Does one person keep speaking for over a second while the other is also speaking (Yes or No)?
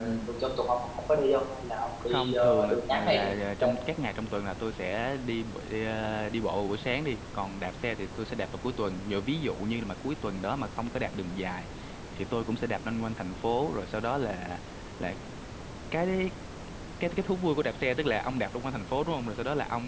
Yes